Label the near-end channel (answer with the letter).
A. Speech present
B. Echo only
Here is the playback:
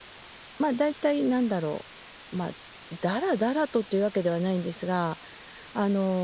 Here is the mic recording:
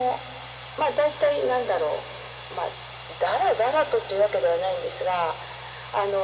B